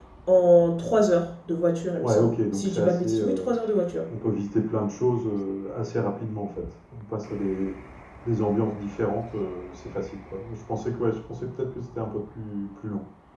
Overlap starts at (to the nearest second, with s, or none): 2 s